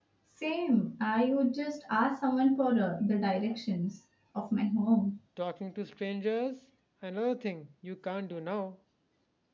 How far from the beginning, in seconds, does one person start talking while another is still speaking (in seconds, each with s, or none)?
none